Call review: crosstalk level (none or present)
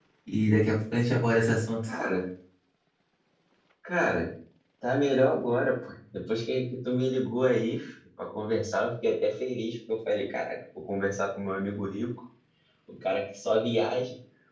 none